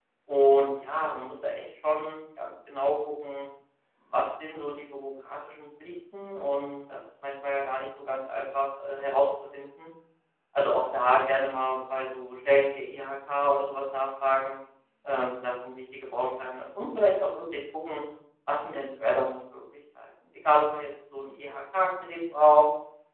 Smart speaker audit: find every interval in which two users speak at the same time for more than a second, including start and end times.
none

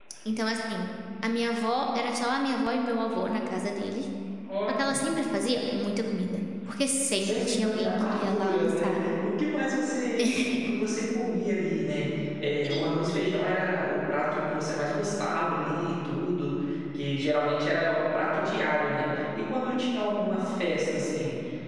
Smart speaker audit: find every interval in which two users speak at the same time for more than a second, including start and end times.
7.2-9.0

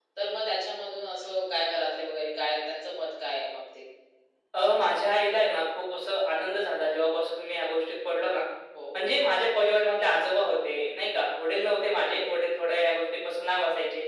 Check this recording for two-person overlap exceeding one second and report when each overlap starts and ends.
none

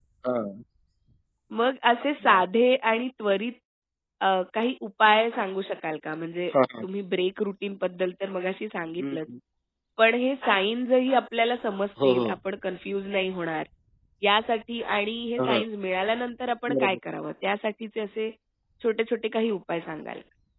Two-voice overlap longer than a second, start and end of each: none

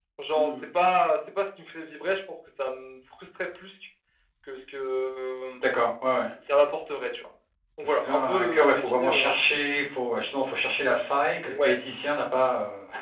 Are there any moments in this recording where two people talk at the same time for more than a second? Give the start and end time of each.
7.8-9.3

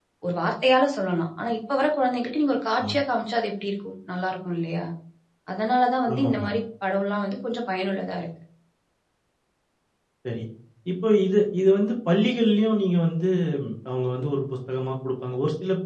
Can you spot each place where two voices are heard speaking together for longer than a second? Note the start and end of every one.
none

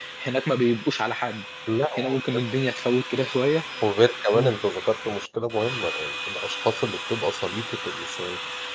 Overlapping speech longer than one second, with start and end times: none

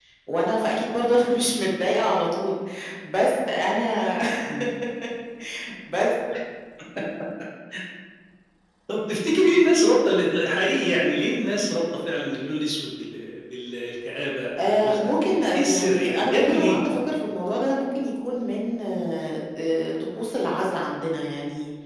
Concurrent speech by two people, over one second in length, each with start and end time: 14.6-16.9

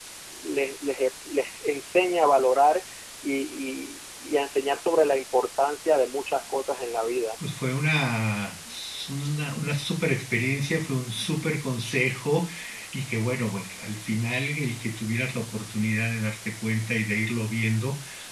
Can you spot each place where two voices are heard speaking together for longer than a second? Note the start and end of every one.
none

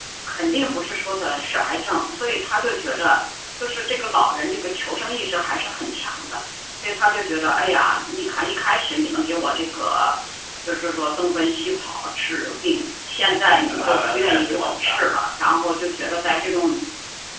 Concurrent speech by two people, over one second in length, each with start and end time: 13.7-15.2

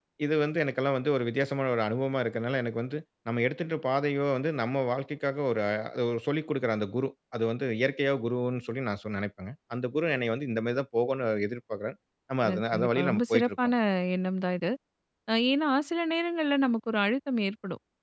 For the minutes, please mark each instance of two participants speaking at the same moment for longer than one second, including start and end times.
12.5-13.7

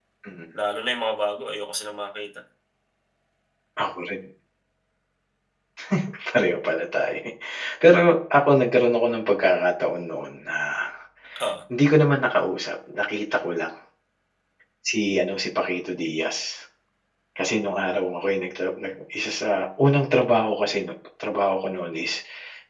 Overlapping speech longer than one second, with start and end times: none

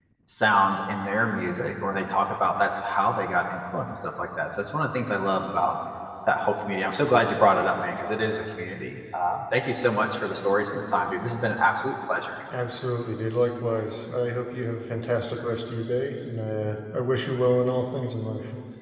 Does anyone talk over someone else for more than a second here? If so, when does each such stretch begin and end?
none

